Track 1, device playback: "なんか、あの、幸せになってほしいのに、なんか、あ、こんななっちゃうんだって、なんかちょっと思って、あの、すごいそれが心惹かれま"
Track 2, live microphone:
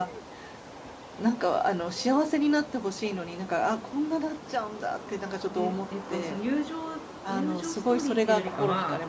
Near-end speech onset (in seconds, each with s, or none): 5.5 s